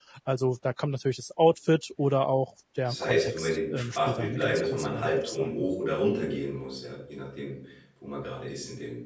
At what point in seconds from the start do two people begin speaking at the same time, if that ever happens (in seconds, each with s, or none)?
2.9 s